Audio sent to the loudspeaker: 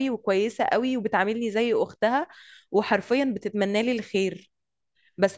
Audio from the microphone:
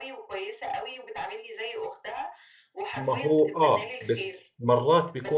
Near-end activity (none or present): present